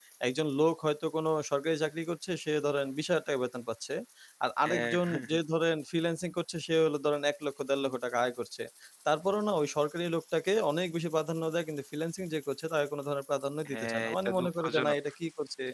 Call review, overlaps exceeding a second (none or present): present